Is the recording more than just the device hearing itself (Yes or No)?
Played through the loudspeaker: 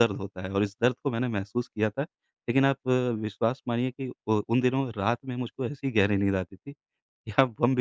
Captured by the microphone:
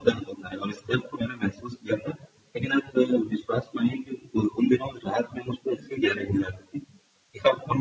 No